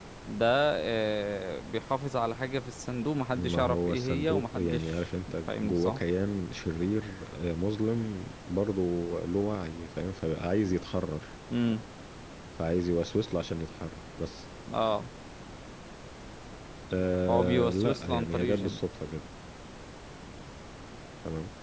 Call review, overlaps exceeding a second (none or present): present